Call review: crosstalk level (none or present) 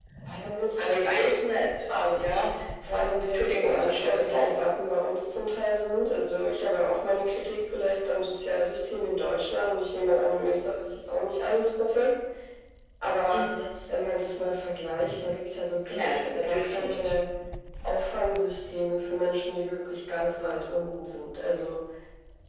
present